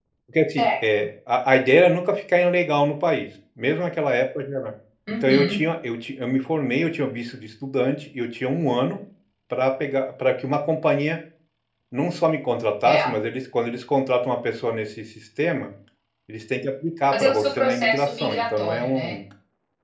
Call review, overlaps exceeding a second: present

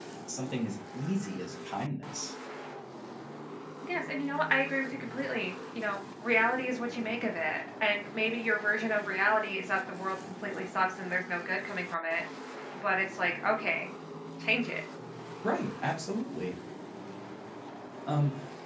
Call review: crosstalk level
none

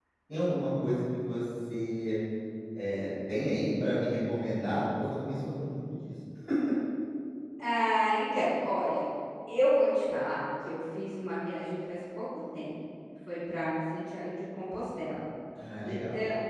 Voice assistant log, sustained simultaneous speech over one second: none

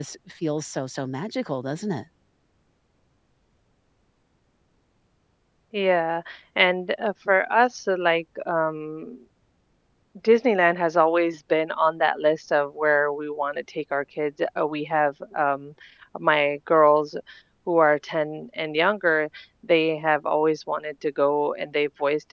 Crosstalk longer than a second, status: none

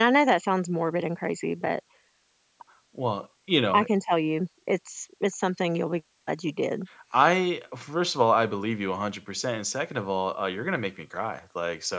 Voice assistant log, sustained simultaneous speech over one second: none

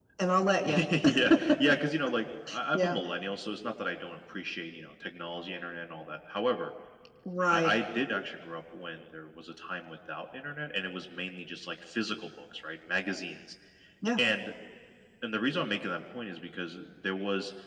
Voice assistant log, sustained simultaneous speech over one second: none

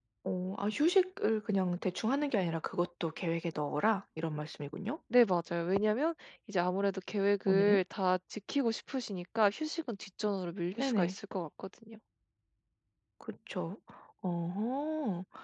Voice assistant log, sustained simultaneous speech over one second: none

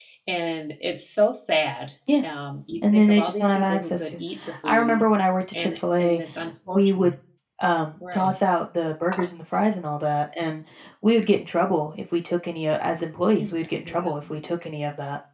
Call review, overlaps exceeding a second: present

